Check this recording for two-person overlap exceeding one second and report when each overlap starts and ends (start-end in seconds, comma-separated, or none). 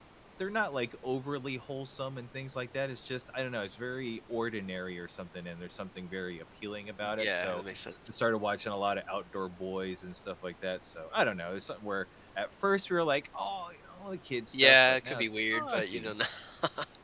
14.5-16.1